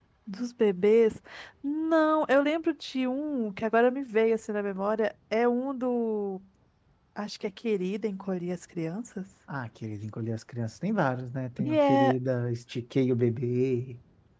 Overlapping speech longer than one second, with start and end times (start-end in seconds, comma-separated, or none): none